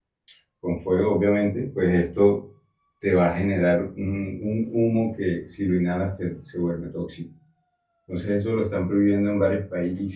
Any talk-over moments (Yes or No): No